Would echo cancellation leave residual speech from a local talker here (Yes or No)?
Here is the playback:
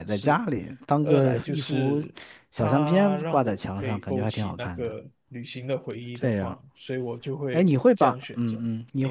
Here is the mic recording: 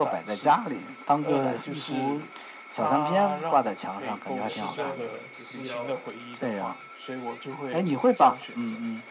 Yes